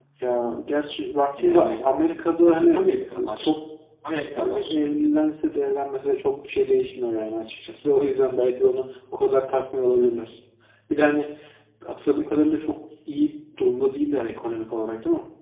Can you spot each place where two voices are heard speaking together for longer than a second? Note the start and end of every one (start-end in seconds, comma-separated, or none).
none